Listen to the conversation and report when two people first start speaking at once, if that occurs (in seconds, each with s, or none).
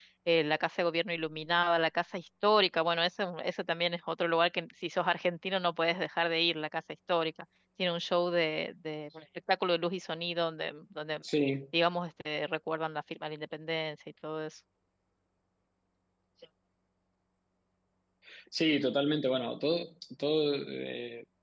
none